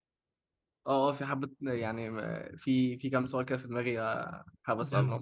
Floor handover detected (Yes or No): Yes